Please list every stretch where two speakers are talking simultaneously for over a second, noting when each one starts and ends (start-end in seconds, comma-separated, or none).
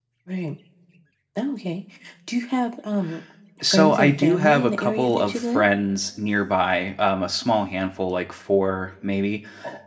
3.7-5.6